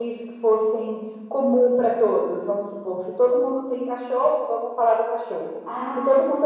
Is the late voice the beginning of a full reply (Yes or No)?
No